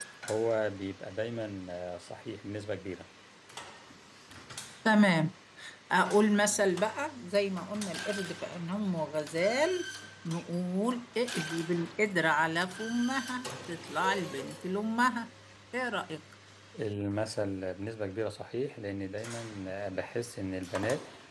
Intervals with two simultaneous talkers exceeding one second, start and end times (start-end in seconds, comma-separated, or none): none